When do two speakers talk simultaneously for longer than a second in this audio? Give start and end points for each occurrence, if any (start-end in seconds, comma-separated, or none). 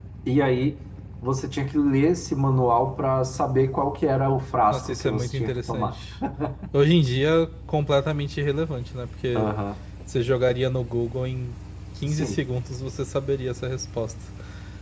4.7-5.9